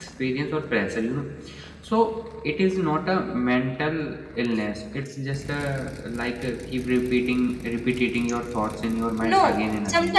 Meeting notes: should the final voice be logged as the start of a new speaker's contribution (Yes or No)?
Yes